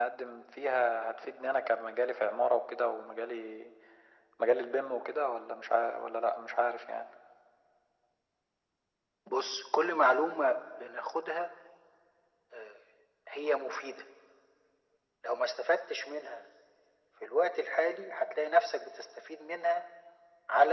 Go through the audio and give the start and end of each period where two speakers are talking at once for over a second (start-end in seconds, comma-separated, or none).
none